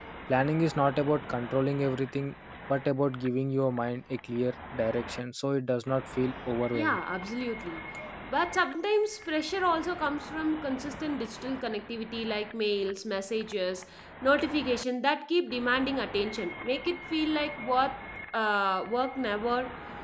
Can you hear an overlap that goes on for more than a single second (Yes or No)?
No